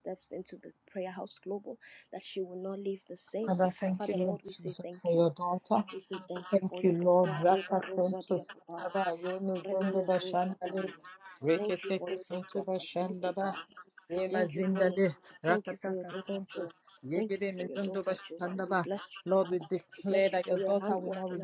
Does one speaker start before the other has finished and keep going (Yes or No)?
Yes